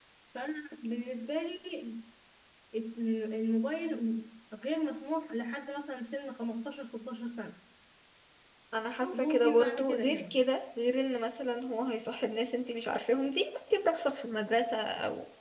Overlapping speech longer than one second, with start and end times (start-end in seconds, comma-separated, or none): 9.0-10.4